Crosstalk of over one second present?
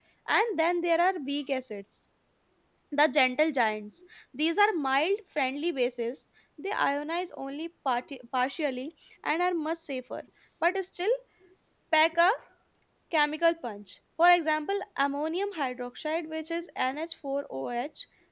No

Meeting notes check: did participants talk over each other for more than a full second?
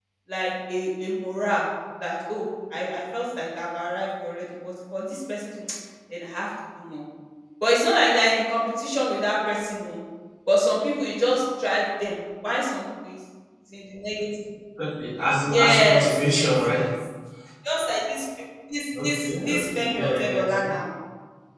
Yes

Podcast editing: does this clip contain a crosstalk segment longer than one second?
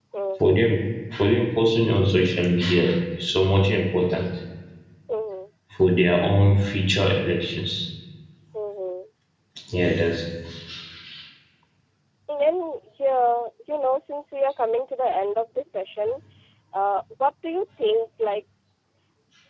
No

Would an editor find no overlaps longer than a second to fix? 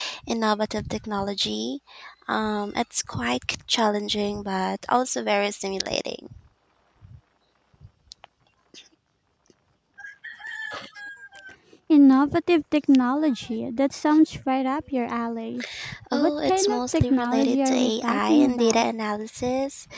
No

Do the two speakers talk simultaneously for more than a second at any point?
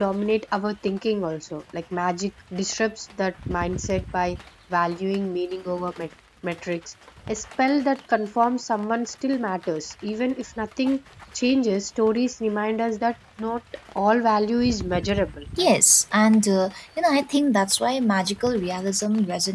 No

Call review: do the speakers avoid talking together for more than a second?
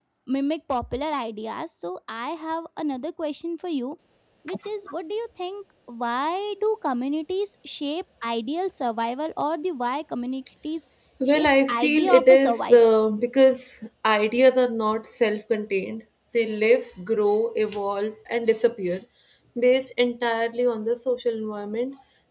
No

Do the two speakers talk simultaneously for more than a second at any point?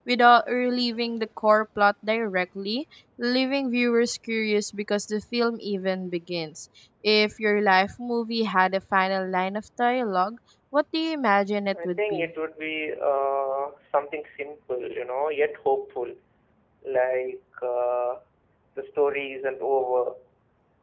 No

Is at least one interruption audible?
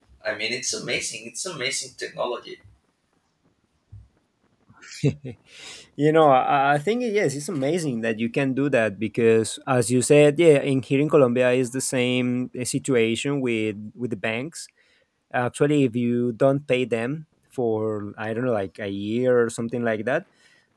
No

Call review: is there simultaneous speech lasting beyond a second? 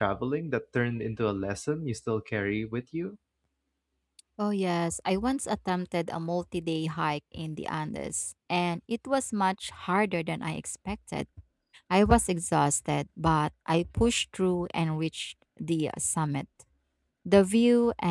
No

